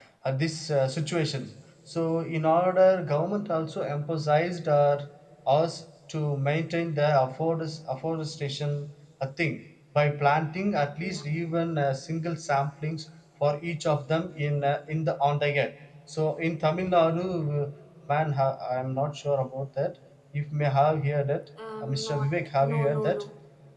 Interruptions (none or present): present